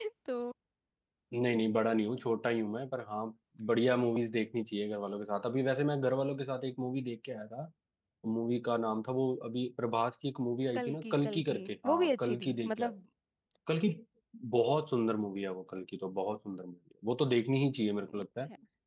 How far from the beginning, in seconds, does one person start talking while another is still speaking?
10.8 s

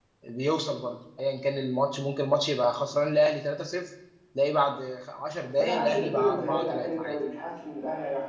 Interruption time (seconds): 5.6 s

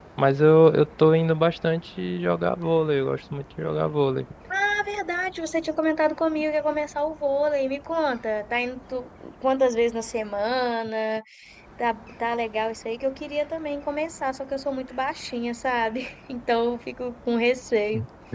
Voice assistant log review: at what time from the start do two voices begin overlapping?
none

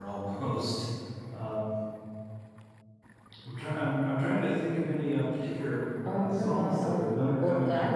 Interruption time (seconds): 6.0 s

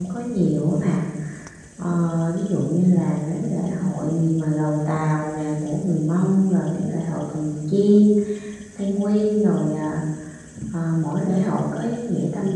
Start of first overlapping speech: none

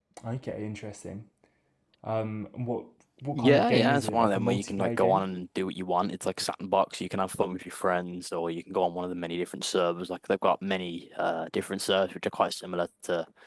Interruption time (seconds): 3.4 s

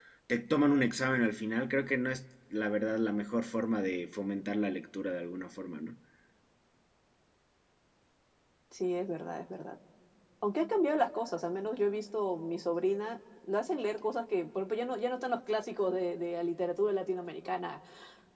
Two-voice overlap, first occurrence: none

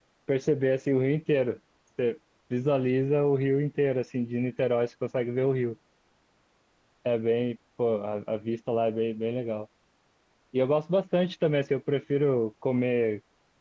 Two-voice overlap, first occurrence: none

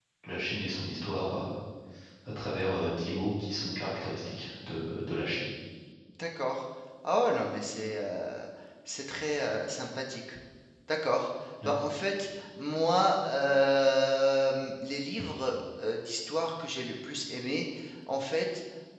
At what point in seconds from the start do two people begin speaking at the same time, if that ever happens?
none

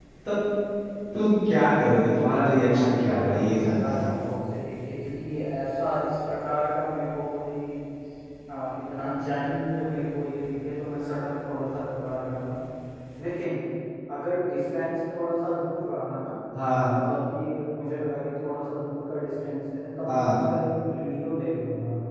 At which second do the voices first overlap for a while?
2.7 s

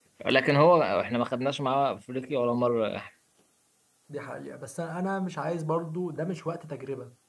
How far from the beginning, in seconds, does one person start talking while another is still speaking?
none

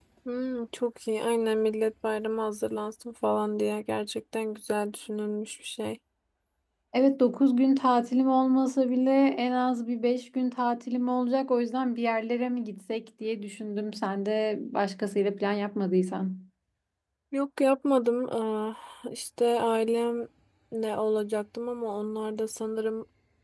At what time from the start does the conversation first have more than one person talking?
none

